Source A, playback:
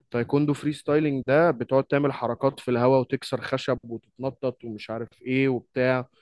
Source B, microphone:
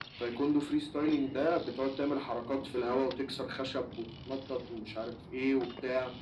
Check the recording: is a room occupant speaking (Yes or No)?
No